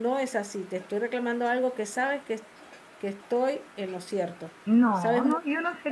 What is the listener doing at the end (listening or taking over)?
taking over